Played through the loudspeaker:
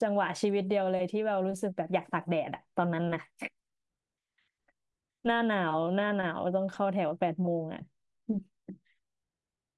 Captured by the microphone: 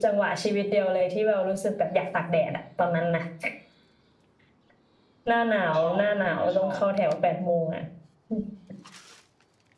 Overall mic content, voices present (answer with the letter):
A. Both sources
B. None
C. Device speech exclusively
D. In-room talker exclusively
A